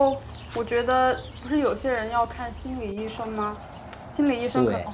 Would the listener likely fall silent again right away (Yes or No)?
Yes